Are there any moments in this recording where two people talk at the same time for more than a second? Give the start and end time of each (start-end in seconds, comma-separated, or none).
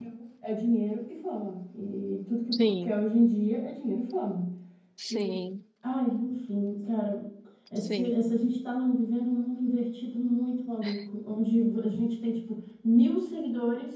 none